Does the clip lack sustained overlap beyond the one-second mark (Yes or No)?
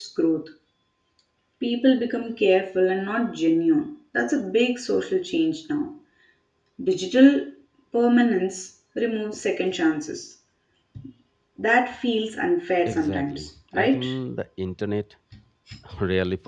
No